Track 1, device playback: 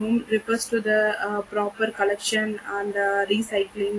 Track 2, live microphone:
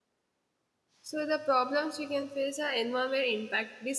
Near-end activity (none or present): present